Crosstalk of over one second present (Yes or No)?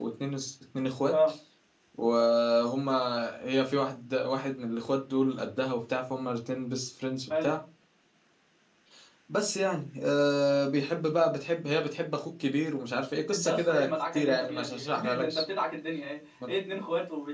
Yes